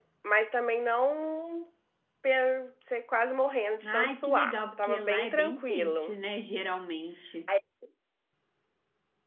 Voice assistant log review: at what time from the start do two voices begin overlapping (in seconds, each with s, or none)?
3.8 s